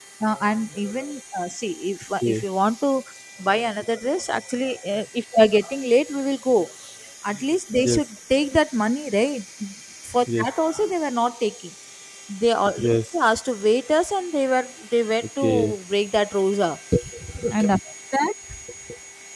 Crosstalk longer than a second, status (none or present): none